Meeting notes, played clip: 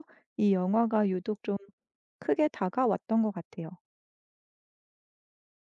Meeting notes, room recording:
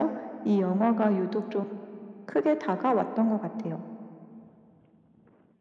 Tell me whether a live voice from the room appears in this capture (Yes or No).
No